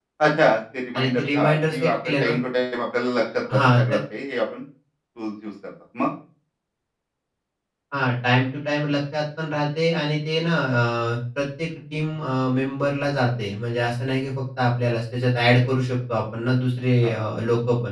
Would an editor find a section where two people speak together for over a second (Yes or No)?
Yes